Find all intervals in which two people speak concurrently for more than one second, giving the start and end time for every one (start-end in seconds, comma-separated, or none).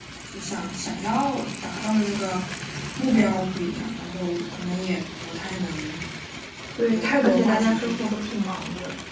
6.9-8.2